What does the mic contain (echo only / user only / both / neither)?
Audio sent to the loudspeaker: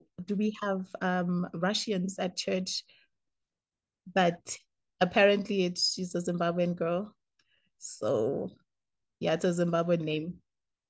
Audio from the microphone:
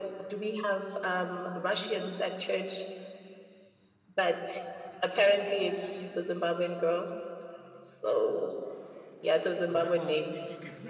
both